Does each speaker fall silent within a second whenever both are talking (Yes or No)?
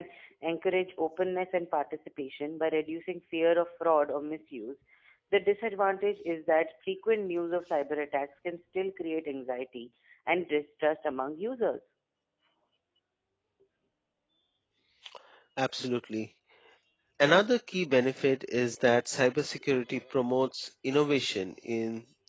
Yes